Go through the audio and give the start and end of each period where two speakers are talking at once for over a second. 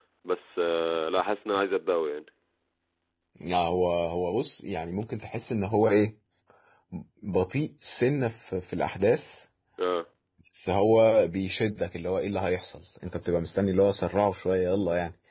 none

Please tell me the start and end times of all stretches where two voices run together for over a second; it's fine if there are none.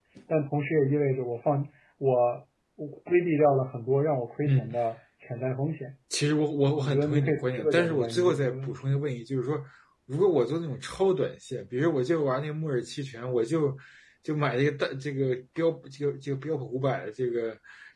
6.8-8.8

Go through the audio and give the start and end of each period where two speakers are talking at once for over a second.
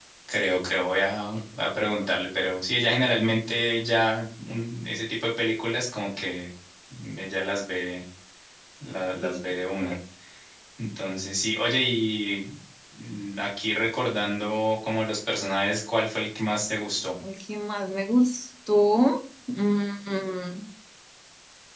none

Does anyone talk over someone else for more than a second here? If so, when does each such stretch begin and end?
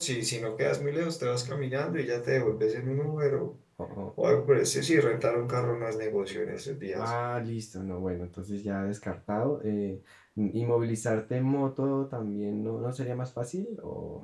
none

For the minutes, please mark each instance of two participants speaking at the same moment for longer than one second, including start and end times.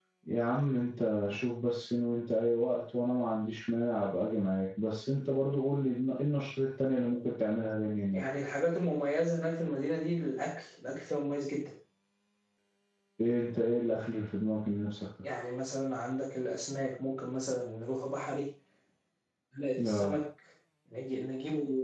none

